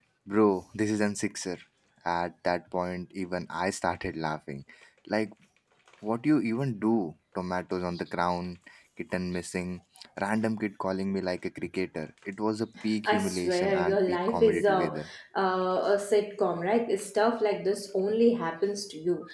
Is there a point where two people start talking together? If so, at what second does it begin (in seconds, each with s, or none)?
13.1 s